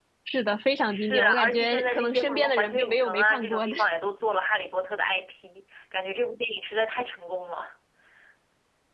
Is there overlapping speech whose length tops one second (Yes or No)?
Yes